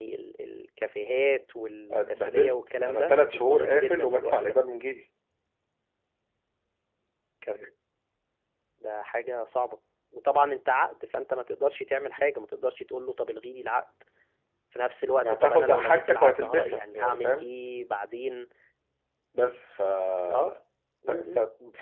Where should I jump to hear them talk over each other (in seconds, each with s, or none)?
1.9 s